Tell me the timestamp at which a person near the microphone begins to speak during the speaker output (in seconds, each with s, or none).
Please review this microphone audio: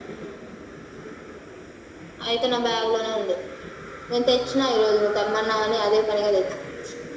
none